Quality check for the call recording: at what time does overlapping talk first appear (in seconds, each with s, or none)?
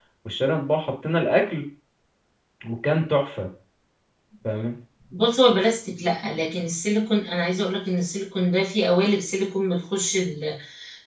none